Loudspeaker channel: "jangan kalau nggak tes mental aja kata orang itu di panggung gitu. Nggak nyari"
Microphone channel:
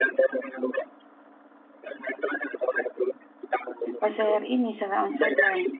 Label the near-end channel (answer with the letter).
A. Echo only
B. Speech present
B